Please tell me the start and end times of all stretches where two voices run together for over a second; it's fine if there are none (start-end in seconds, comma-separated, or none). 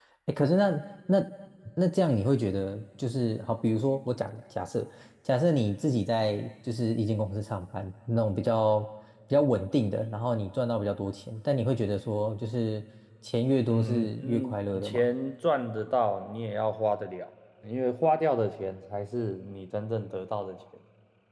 13.7-15.1